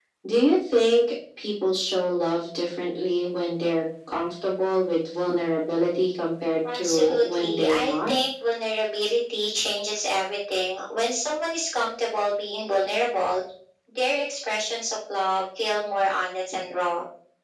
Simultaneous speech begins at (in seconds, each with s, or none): 6.6 s